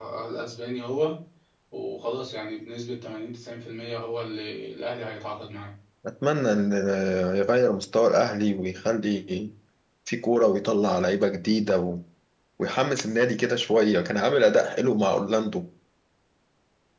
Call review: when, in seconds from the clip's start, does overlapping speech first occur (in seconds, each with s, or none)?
none